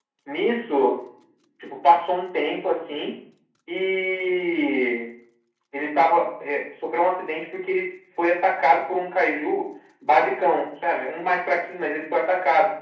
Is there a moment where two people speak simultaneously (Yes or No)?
No